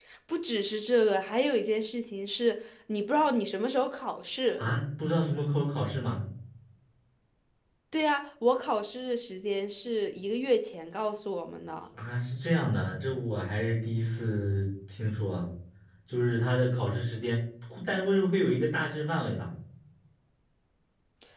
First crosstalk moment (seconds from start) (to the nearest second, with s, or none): none